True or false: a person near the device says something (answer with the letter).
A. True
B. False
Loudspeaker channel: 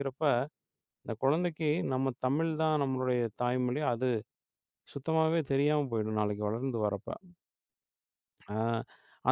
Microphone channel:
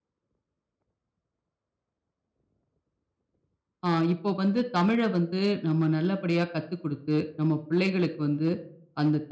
A